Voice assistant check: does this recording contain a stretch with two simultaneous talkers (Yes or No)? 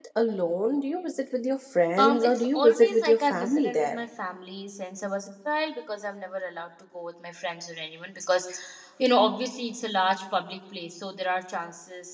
Yes